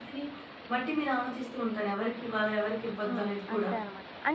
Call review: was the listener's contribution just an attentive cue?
No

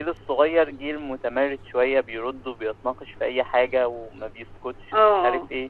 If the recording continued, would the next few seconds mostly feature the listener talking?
No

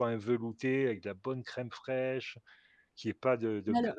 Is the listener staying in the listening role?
Yes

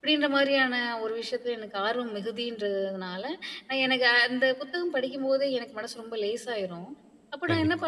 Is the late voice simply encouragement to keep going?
Yes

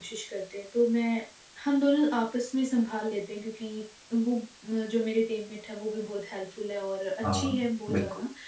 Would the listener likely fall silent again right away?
Yes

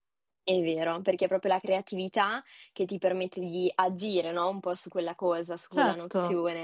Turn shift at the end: No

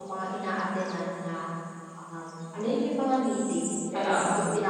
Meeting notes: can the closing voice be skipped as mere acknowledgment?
Yes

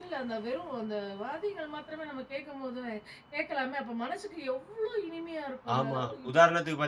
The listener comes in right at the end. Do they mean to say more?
Yes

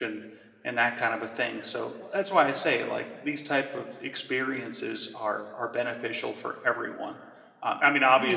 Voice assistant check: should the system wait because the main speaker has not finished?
Yes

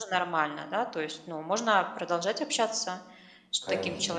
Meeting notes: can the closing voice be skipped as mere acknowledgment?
No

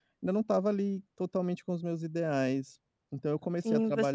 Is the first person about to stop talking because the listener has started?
Yes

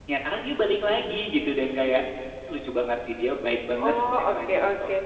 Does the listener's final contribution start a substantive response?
Yes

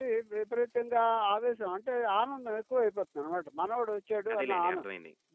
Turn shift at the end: No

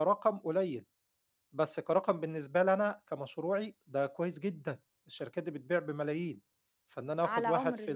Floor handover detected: Yes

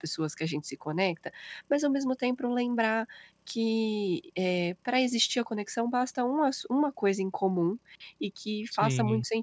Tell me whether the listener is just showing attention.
Yes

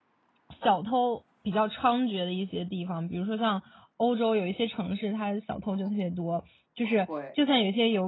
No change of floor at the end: Yes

